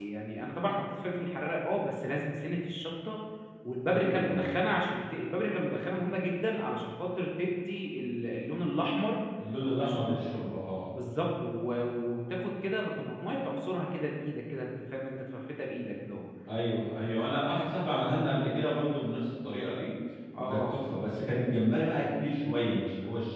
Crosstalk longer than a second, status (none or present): none